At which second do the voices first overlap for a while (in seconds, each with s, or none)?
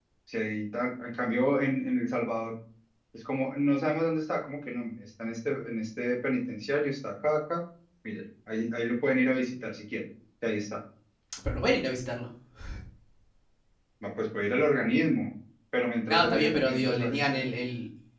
16.1 s